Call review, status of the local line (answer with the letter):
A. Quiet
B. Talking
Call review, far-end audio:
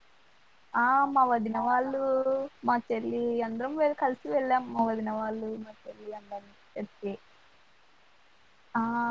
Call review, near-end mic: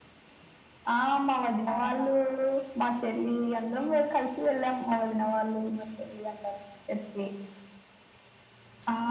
A